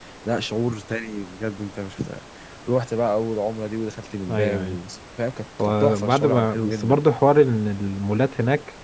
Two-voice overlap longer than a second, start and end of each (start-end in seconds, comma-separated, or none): 5.6-7.0